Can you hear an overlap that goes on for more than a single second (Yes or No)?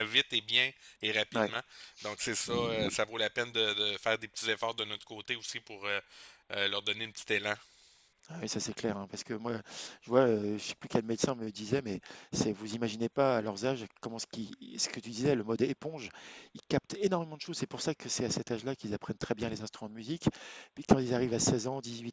No